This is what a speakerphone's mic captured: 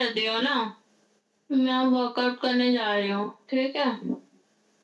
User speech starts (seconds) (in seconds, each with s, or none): none